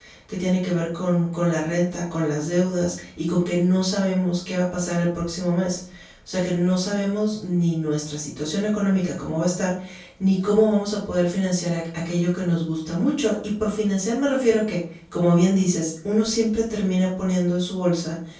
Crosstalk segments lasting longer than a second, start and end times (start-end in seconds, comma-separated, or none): none